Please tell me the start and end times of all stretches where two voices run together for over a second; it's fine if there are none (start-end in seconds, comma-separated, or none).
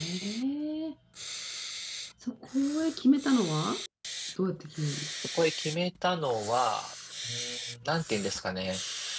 none